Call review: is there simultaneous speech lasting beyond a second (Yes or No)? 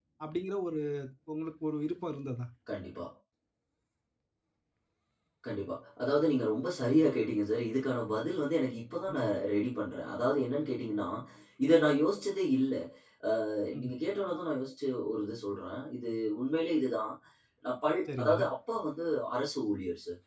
No